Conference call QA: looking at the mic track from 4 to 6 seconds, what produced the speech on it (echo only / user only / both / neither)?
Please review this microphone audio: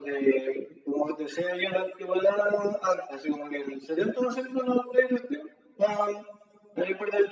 echo only